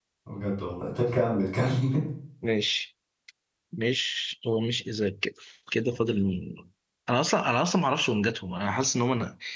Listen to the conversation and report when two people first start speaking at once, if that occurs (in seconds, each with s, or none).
none